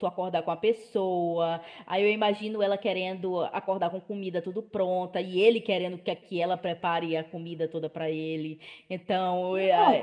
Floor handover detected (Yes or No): Yes